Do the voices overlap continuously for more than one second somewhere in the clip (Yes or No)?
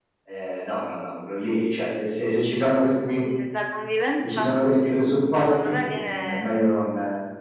Yes